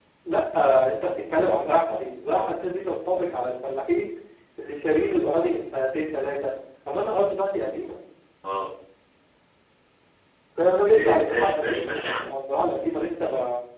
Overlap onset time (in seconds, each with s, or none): 10.7 s